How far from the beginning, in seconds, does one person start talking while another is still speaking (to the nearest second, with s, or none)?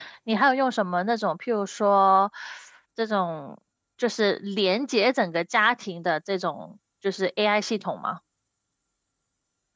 none